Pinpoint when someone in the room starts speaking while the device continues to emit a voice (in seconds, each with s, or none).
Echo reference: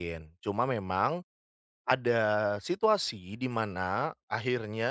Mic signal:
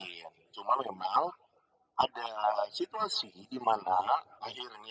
none